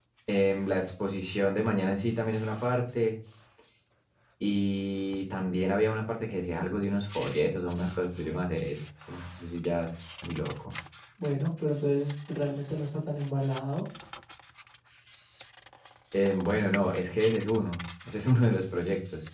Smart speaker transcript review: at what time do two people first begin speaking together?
none

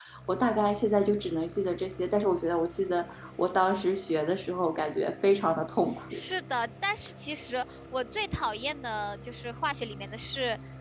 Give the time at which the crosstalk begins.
none

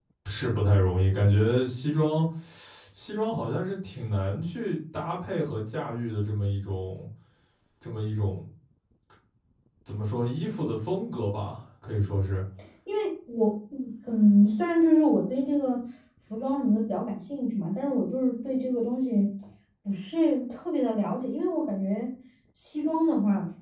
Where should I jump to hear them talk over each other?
none

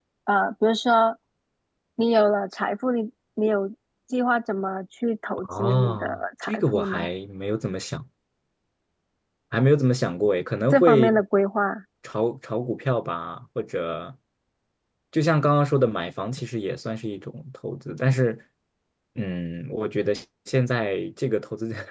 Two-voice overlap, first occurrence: 5.4 s

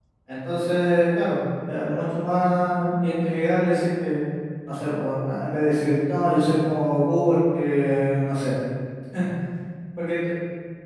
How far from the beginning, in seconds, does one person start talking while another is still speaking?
none

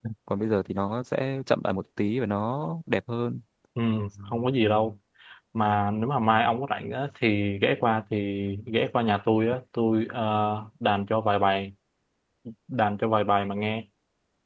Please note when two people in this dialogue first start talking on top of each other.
none

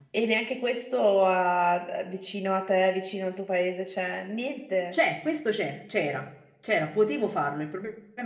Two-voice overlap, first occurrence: none

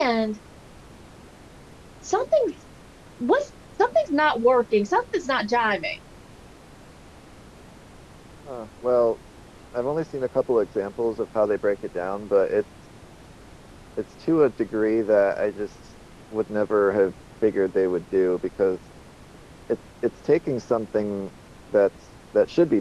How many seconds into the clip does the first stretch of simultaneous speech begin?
none

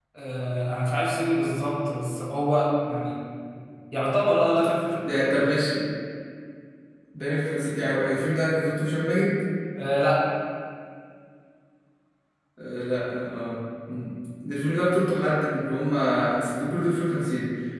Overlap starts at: none

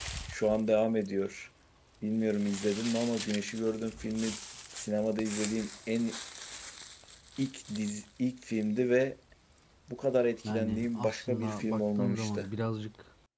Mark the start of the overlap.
10.4 s

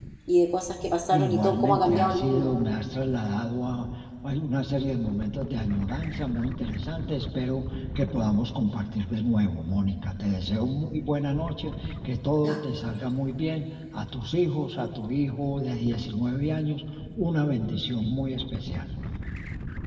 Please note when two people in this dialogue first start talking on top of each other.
1.1 s

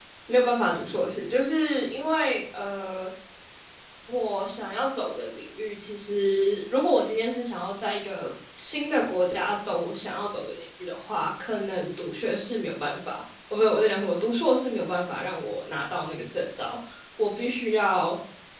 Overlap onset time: none

